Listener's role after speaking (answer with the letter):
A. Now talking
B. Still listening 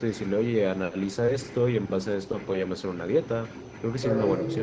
A